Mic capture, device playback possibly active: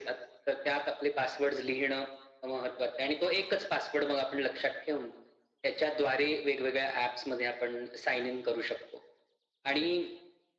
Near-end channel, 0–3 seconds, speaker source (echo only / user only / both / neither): echo only